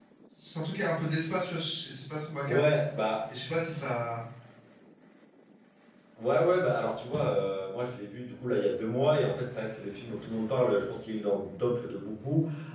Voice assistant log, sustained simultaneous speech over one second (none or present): none